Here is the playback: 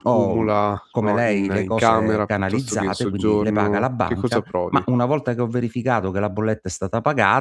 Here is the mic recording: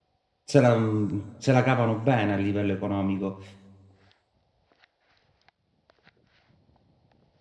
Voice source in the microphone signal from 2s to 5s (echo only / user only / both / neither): user only